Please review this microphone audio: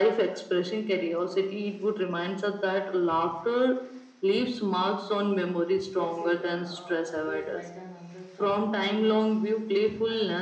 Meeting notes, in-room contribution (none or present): present